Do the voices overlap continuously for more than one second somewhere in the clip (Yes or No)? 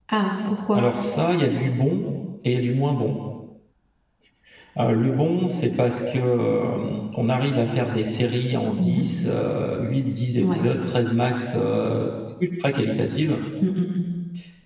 No